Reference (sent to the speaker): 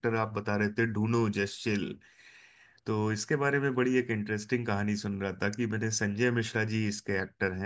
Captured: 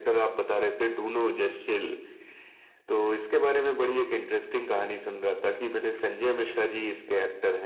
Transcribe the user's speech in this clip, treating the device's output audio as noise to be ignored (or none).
none